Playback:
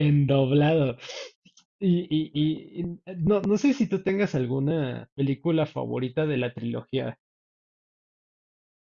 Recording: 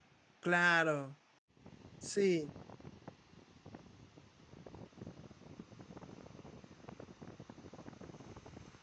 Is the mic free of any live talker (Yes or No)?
No